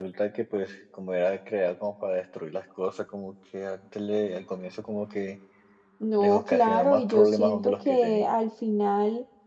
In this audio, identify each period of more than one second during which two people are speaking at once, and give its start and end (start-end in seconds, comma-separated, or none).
6.2-8.3